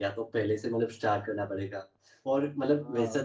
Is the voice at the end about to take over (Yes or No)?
No